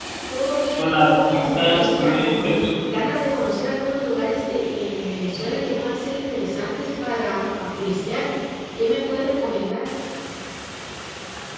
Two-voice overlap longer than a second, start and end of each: 0.8-2.8

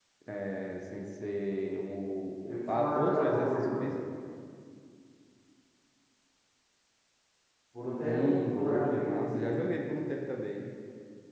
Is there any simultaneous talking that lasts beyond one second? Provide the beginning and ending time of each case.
2.5-3.9, 8.0-9.6

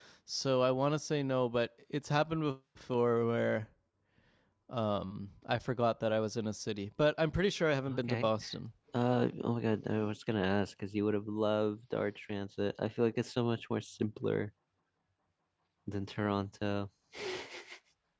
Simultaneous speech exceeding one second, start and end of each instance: none

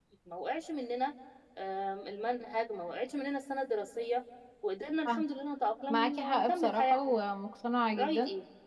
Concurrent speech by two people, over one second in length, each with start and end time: 5.9-7.1

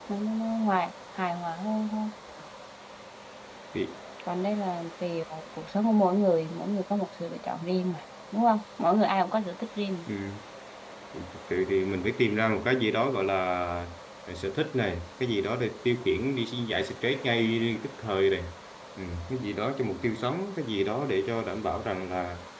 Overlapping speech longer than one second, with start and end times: none

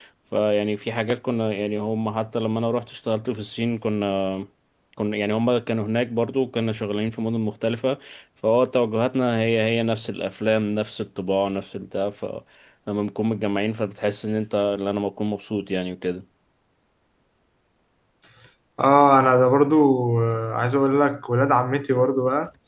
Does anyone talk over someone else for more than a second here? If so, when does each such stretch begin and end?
none

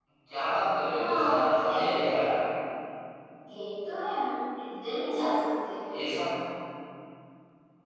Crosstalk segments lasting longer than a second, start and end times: 0.9-2.2

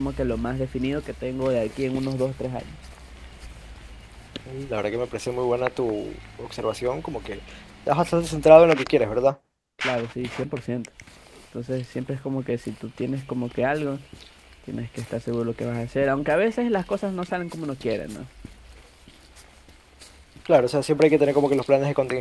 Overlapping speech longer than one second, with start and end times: none

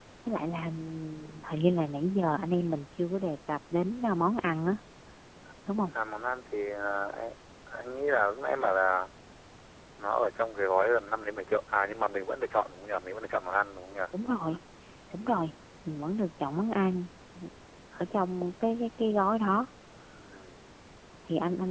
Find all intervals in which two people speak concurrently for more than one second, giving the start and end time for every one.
none

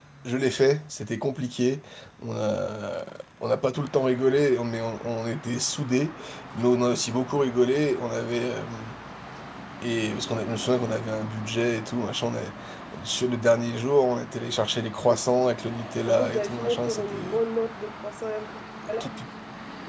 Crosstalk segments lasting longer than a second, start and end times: 16.1-17.4

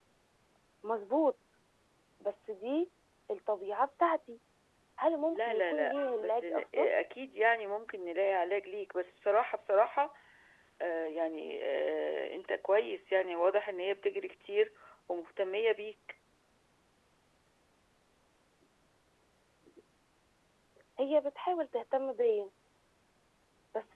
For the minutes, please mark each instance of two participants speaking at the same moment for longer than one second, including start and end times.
5.3-6.8

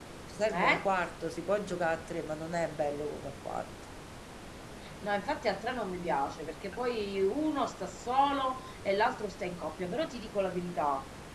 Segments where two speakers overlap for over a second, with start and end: none

